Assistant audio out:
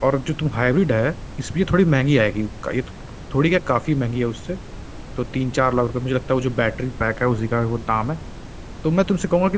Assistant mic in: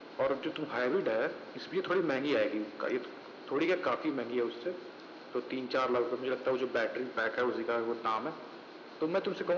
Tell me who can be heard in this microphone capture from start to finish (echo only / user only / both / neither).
echo only